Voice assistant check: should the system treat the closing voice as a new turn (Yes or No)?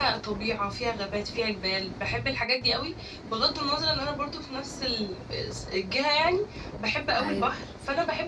No